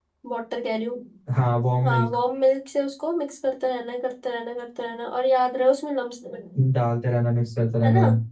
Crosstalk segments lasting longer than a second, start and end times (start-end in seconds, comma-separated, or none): none